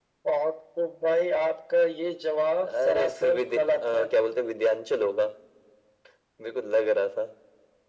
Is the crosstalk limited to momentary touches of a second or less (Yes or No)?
No